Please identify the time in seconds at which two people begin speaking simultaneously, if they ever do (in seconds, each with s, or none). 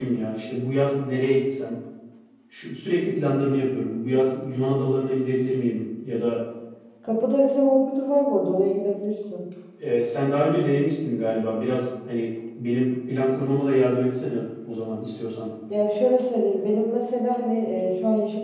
none